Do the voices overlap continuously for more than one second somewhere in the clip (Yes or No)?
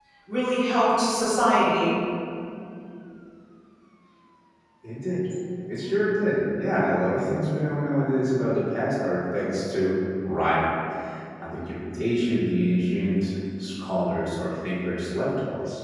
No